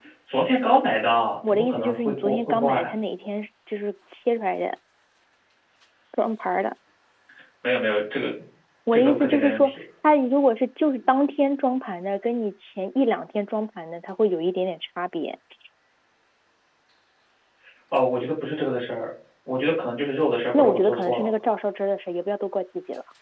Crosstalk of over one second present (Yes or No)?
Yes